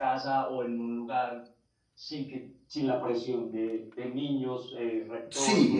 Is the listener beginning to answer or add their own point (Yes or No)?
Yes